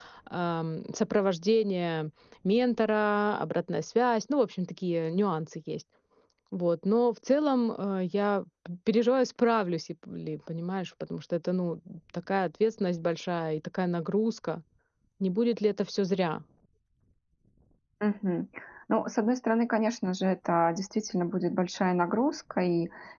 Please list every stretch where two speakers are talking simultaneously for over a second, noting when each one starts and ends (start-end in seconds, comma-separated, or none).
none